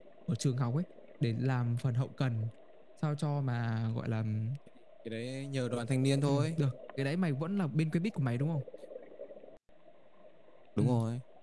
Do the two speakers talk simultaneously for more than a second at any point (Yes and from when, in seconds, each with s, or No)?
No